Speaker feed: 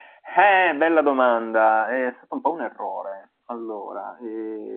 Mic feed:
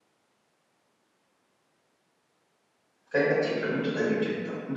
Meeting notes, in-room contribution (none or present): present